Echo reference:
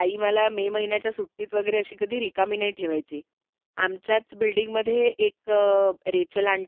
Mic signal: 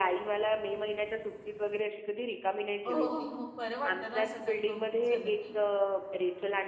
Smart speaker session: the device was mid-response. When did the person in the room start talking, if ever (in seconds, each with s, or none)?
2.9 s